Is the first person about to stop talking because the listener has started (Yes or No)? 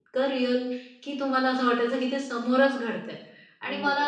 No